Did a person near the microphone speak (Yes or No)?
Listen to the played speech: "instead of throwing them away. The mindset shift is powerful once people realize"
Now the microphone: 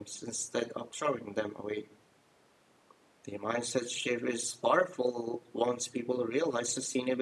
No